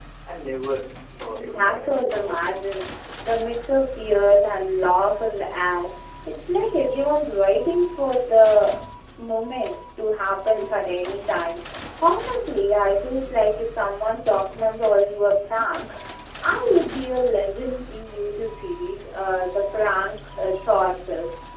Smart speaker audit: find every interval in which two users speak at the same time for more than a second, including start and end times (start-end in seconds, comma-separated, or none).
1.3-2.6